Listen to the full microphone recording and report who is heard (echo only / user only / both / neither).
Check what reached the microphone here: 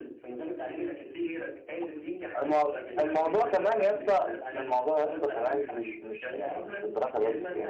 both